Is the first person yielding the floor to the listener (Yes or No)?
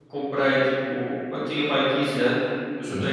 No